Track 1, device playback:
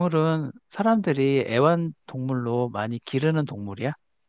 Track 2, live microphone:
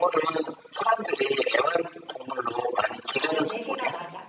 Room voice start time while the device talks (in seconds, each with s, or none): 3.2 s